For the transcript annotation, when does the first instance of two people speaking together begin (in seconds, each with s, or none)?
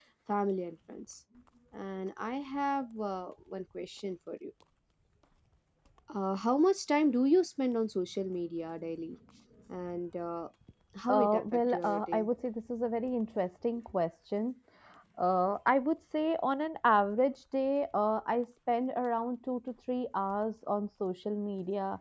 11.1 s